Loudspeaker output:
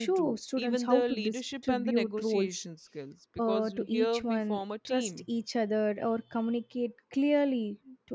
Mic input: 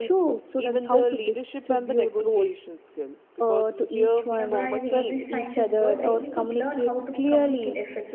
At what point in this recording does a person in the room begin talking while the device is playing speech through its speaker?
4.4 s

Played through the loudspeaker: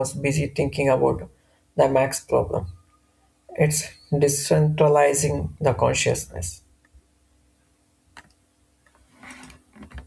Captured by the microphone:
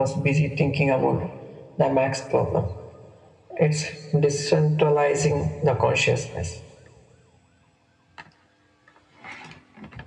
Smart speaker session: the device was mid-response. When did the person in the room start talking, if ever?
none

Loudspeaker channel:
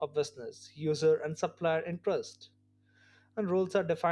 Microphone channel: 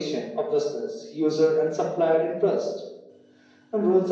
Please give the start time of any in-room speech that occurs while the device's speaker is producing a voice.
none

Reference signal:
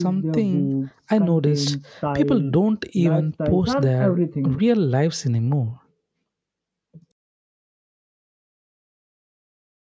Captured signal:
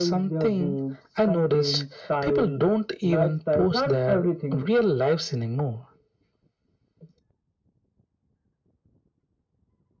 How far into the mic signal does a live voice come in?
none

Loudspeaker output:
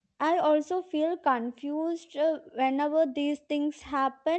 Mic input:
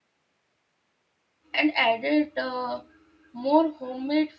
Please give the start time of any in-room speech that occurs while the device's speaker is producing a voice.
1.5 s

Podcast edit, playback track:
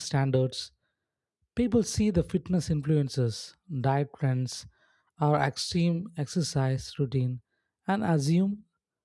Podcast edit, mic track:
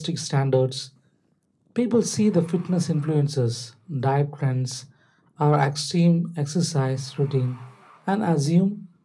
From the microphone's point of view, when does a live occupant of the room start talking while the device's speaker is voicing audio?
none

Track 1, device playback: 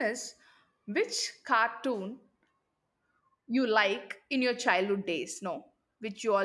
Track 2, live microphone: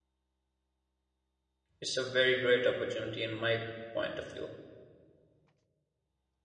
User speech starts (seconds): 1.8 s

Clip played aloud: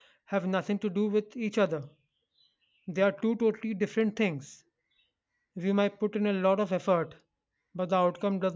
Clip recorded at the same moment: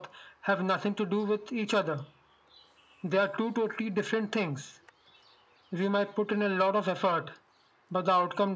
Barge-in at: none

